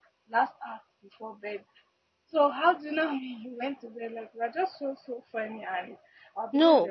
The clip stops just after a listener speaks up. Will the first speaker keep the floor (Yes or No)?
No